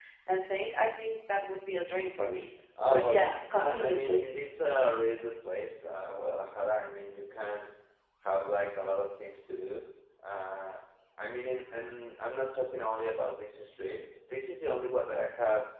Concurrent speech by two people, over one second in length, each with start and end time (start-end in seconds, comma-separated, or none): 2.8-4.4